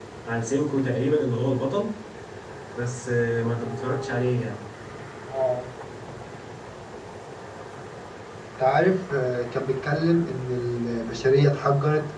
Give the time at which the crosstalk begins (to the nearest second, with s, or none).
none